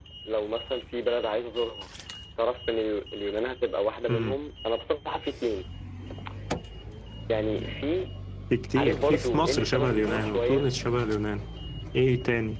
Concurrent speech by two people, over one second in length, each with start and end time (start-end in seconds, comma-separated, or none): 8.8-10.7